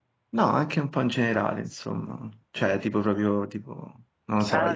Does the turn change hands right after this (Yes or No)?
Yes